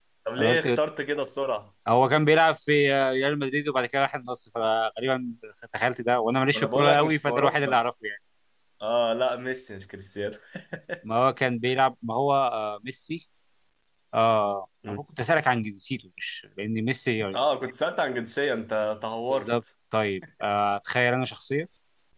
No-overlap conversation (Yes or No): No